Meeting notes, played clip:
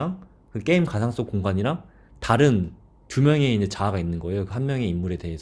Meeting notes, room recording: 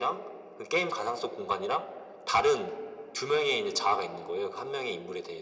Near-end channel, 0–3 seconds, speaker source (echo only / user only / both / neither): echo only